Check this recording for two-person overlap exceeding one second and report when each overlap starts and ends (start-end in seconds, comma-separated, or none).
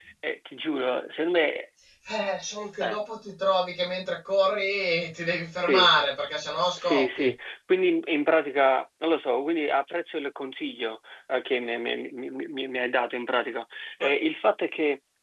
none